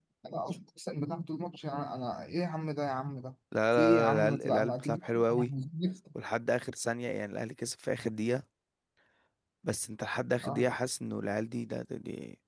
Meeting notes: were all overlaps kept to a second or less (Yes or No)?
No